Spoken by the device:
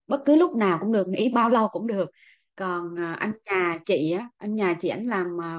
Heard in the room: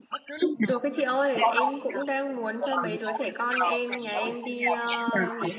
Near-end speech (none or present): present